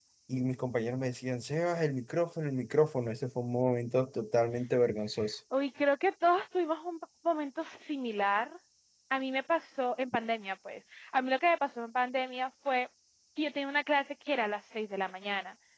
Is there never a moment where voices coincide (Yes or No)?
Yes